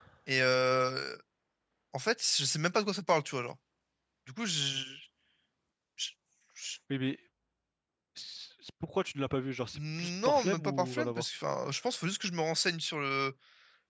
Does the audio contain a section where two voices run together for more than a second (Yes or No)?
Yes